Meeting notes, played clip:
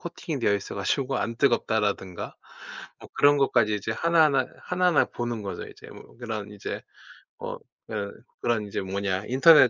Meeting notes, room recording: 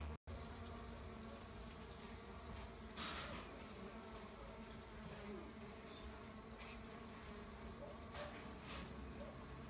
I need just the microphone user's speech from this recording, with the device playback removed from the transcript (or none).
none